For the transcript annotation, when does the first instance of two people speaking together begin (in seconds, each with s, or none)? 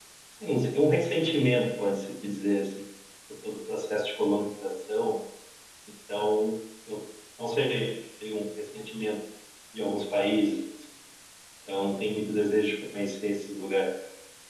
none